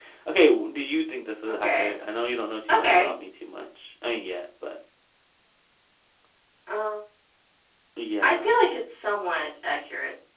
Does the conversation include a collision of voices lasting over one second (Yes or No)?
No